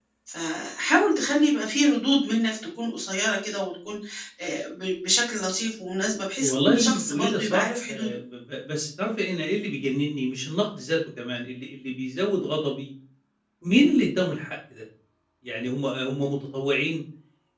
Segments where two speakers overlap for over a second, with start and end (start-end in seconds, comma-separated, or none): 6.4-8.2